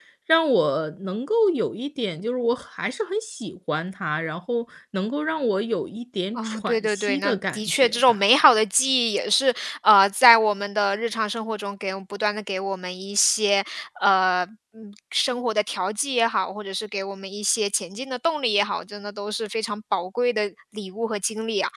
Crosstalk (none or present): present